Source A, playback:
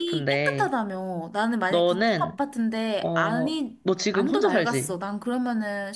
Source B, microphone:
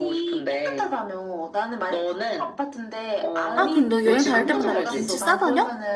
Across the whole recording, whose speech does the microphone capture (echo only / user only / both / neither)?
both